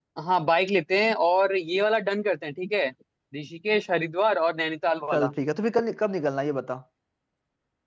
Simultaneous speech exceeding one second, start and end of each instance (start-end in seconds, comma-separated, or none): none